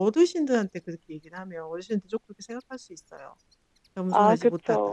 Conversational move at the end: listening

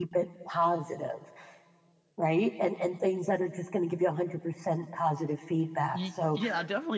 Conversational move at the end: taking over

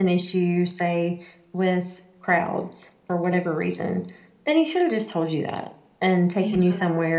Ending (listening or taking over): listening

